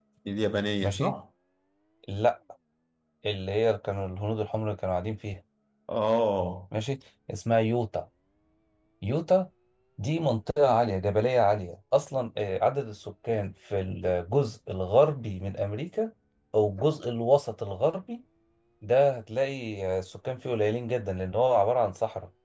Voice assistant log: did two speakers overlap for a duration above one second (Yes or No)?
No